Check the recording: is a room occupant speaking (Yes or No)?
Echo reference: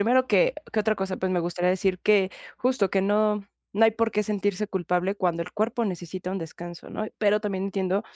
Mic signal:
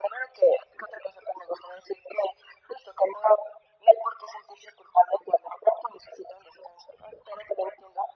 No